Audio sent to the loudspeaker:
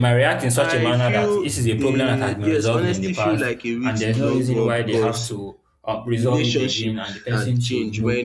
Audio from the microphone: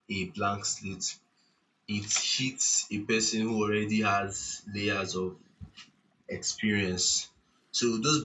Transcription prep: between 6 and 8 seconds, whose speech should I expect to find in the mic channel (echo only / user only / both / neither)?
user only